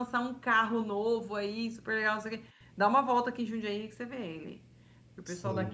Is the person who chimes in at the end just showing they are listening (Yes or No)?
Yes